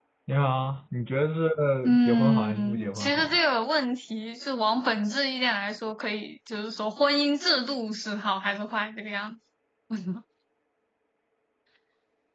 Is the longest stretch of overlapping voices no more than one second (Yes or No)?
No